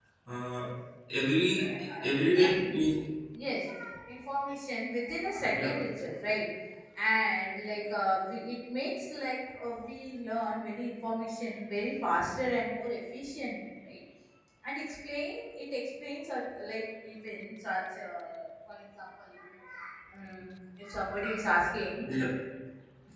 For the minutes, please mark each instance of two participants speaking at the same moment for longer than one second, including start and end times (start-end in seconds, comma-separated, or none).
none